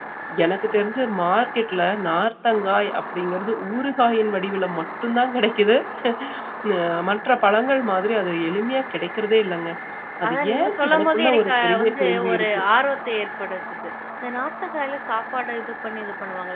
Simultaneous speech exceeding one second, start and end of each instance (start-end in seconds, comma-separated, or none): 10.3-12.6